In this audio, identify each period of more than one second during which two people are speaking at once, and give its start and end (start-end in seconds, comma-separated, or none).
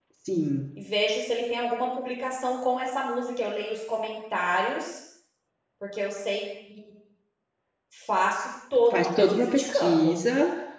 8.9-10.2